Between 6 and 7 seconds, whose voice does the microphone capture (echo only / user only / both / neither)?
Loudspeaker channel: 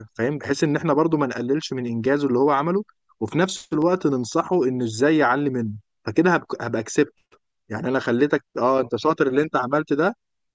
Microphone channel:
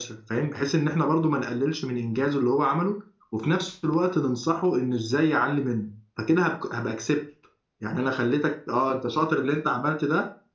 echo only